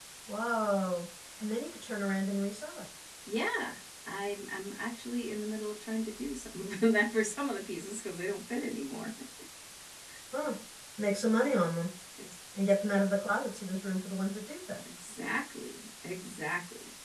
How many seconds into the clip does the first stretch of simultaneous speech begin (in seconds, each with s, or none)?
none